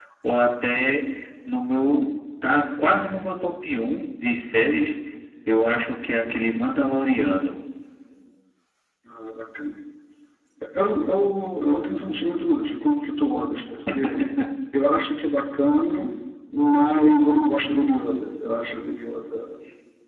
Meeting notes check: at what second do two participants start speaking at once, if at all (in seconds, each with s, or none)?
none